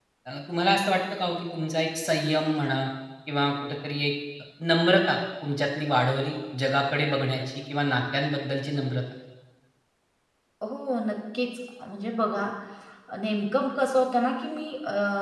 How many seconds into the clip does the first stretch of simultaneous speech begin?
none

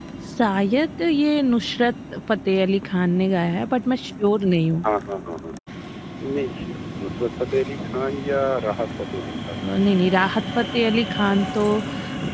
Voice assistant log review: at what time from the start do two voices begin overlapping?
none

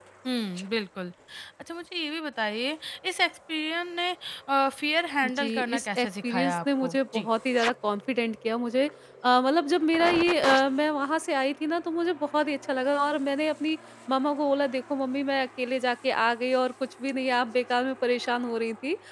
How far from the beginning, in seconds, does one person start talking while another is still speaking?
5.4 s

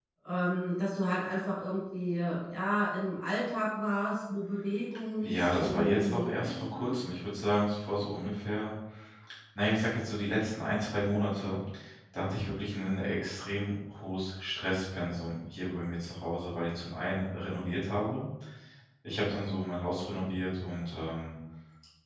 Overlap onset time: 5.2 s

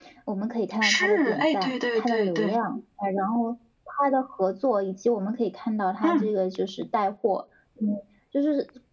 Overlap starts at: 0.8 s

